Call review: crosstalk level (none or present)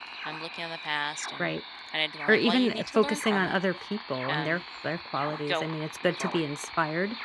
present